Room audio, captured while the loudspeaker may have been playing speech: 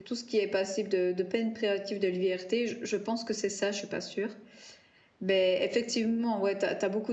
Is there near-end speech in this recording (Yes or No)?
Yes